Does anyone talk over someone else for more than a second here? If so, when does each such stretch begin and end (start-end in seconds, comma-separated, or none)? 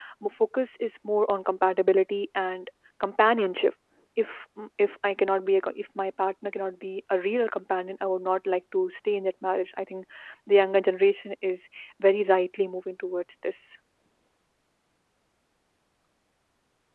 none